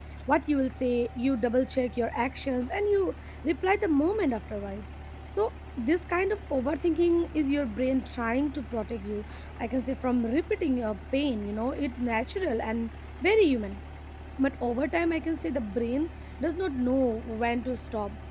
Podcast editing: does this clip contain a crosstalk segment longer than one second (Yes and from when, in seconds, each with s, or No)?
No